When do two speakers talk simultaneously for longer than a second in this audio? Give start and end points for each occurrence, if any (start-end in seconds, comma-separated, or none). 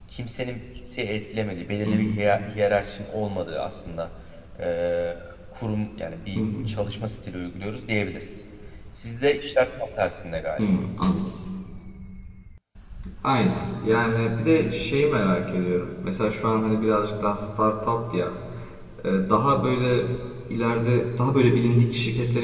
none